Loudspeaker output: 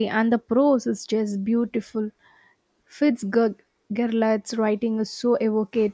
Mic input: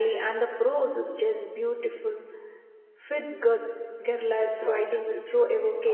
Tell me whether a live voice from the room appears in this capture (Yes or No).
Yes